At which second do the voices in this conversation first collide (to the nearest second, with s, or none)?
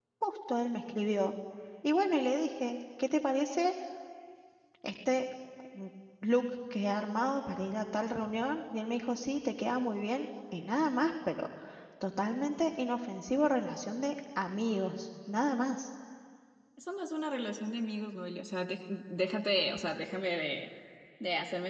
none